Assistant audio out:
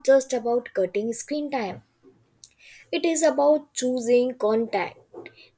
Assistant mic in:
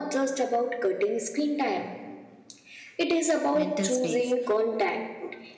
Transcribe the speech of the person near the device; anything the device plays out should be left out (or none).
mental space,